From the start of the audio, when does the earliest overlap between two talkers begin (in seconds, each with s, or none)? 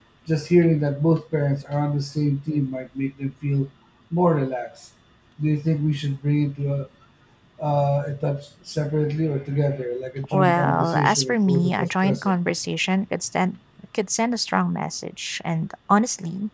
10.3 s